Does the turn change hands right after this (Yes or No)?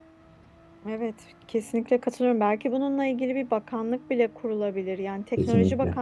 No